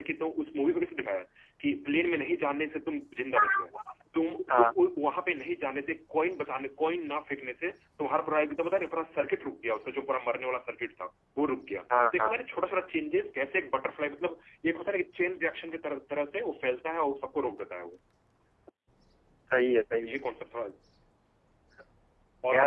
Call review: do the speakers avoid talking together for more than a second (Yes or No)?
Yes